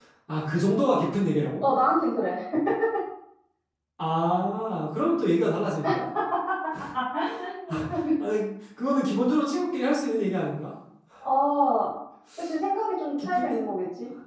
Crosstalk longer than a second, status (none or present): none